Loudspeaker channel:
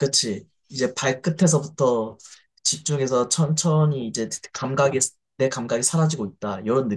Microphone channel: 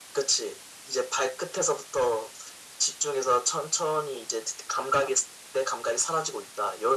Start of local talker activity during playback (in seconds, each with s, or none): none